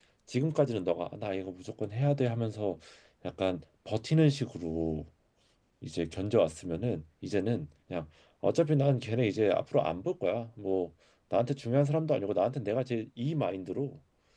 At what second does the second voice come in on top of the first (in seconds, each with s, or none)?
none